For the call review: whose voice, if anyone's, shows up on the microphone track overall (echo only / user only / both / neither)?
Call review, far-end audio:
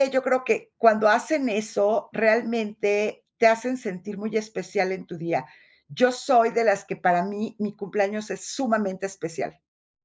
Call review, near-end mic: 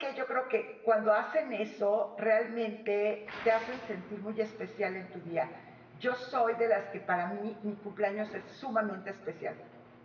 echo only